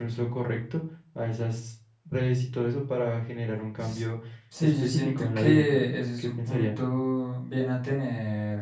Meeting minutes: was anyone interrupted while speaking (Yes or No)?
Yes